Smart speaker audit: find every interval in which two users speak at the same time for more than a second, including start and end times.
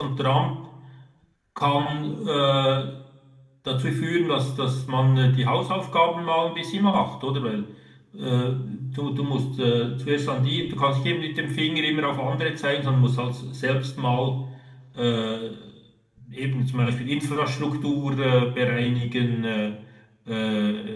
none

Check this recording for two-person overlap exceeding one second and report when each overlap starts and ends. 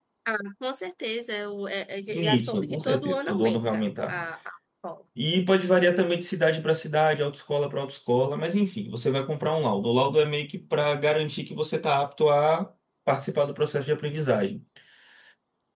2.1-4.2

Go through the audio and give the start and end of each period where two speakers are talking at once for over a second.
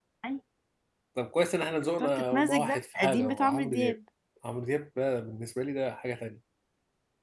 2.0-4.0

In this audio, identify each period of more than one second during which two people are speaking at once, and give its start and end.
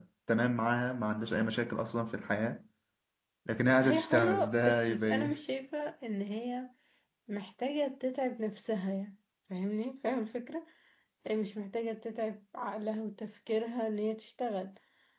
3.8-5.4

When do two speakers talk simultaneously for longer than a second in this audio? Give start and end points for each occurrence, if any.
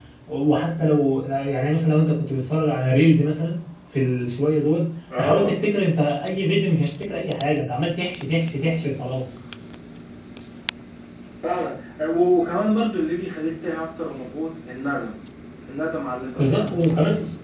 none

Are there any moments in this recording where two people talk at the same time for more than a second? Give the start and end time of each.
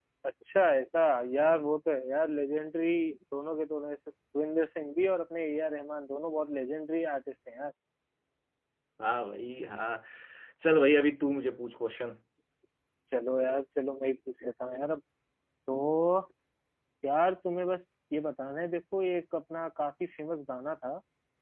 none

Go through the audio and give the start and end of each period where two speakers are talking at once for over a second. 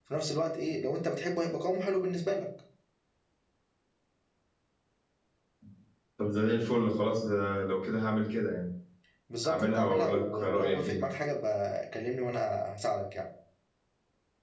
9.4-11.0

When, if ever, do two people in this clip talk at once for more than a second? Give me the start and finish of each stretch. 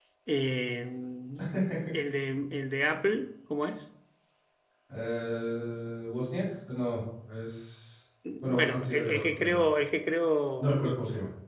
8.4-9.6

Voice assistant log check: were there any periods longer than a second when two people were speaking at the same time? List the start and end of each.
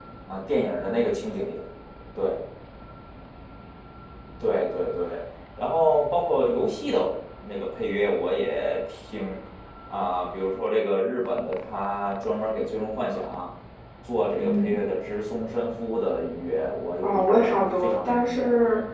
17.0-18.4

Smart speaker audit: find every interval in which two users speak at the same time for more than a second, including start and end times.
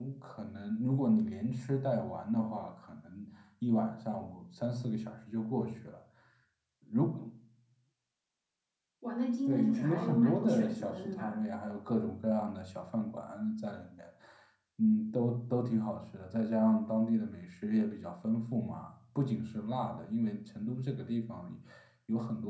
9.5-11.4

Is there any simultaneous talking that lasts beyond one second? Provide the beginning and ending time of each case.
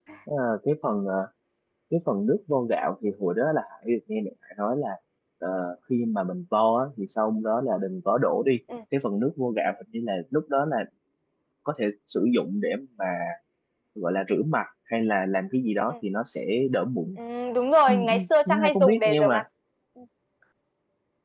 17.9-19.4

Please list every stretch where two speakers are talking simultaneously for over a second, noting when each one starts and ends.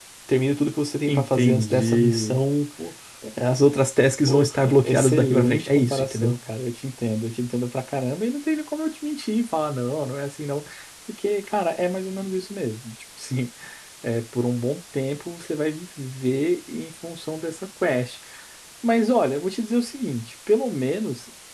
1.0-2.4, 4.3-6.3

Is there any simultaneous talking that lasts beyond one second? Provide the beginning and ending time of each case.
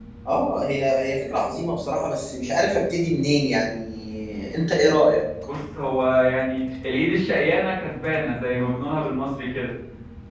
none

